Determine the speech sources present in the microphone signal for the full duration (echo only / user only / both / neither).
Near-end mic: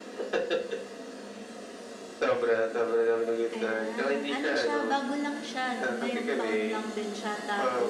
both